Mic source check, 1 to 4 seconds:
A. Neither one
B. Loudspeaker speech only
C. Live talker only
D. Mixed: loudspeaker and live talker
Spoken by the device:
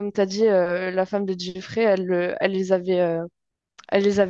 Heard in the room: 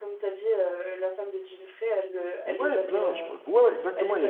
D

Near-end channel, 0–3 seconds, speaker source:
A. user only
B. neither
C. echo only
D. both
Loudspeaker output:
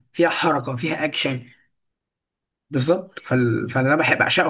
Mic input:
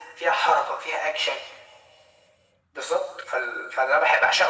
C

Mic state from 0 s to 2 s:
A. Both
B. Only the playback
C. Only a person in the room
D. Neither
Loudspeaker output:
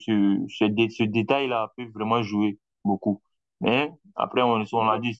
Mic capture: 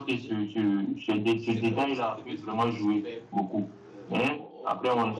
A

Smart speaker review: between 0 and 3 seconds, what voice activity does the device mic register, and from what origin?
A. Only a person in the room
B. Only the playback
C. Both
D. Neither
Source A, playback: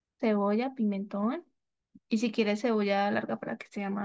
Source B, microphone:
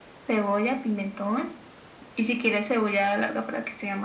B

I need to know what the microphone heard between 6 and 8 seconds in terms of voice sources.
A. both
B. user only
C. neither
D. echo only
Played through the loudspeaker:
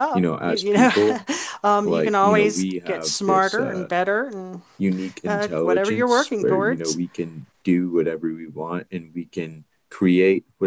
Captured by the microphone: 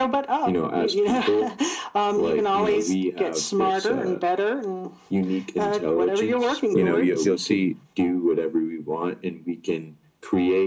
A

